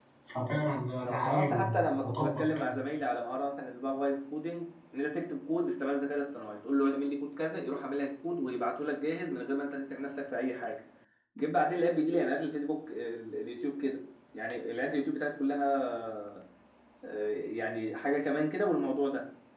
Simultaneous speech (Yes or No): Yes